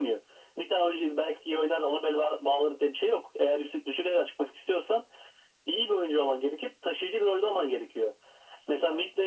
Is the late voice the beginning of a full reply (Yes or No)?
No